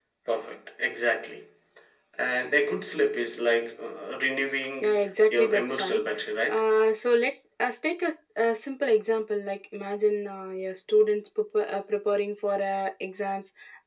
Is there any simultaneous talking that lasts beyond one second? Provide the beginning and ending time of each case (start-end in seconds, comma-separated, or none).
4.8-6.0